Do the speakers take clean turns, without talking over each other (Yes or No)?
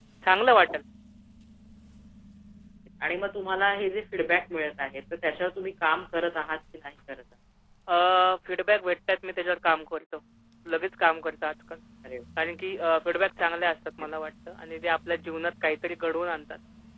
Yes